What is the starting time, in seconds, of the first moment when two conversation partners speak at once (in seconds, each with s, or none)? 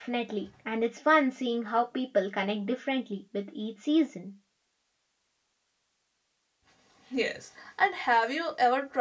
none